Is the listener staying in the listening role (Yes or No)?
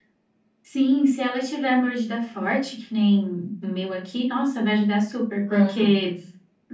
Yes